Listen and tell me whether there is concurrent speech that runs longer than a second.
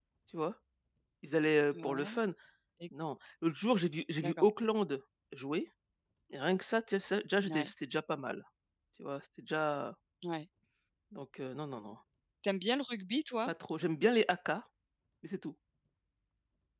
No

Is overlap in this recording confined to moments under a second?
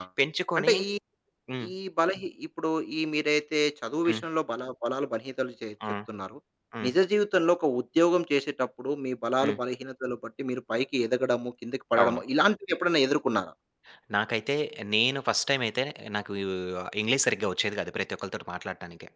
Yes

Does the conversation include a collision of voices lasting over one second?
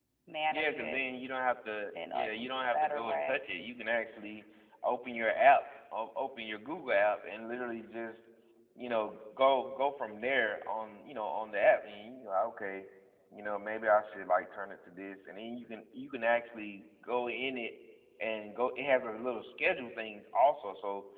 Yes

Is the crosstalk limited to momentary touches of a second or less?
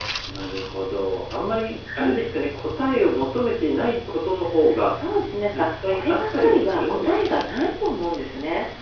No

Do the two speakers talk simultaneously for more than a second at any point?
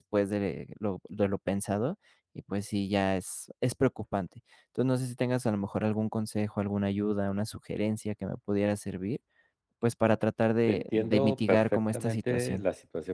Yes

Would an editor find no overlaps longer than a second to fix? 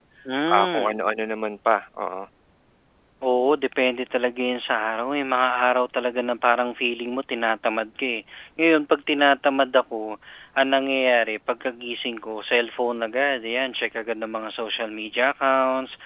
Yes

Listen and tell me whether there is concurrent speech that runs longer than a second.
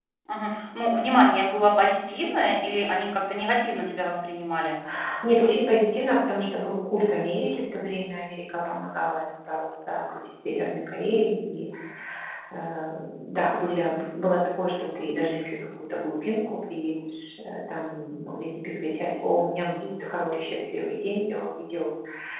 No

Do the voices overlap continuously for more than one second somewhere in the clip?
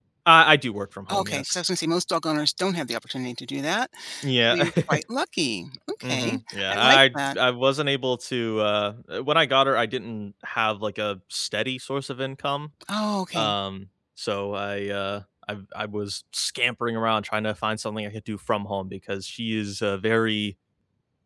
Yes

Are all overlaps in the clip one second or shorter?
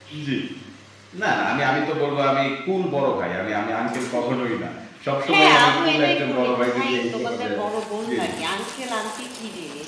No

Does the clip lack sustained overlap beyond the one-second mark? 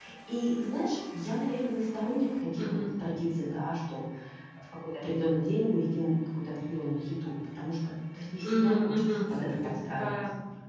No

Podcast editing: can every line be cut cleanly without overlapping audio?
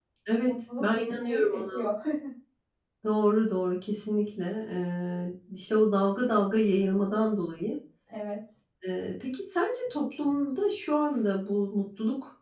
No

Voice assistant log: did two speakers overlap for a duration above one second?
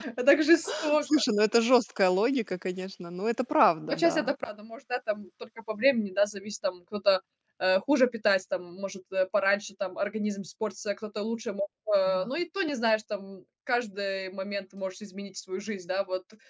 No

